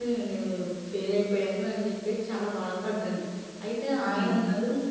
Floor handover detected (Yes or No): No